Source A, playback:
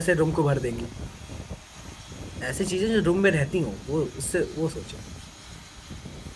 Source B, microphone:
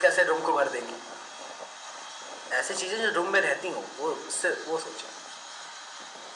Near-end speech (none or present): none